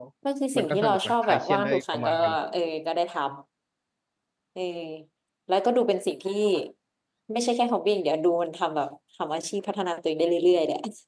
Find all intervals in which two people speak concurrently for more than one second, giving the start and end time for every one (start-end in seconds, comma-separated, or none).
0.6-2.1